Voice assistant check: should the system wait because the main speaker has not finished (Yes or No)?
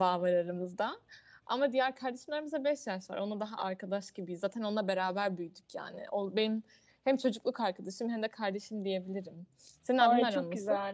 No